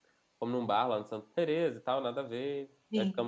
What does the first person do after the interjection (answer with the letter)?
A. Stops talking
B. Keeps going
B